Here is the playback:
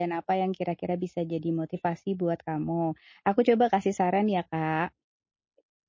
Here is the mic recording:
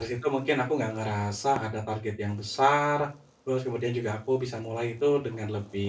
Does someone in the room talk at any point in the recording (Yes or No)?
Yes